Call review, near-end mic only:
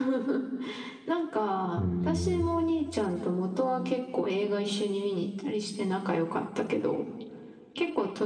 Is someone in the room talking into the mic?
Yes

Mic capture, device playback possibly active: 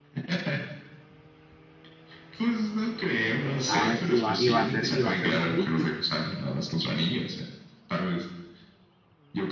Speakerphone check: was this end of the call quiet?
No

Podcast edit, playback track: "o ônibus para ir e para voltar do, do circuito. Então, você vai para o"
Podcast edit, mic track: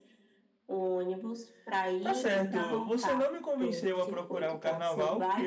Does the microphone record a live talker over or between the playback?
Yes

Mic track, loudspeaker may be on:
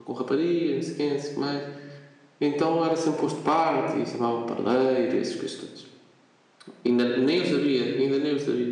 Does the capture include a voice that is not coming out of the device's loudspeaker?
Yes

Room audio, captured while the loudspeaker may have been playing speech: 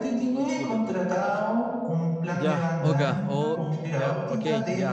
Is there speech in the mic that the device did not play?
Yes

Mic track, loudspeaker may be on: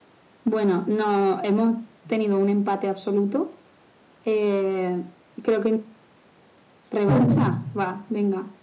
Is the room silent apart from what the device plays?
No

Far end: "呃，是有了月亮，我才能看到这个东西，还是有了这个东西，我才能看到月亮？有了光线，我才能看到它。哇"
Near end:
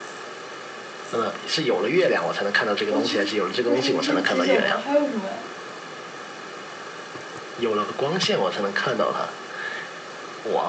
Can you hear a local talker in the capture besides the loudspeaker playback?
Yes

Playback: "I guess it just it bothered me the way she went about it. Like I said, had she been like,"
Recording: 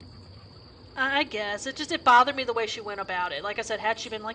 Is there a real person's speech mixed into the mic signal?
No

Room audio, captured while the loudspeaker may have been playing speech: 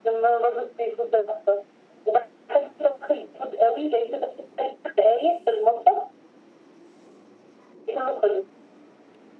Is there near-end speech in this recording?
No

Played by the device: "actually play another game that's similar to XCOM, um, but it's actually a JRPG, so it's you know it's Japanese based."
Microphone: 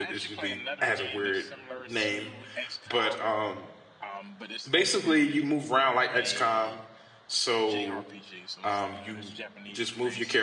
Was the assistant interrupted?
Yes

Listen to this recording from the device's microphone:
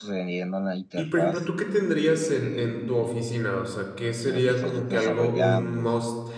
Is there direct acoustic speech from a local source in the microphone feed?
Yes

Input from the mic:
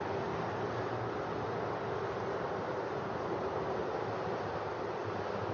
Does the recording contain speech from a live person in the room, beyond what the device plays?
No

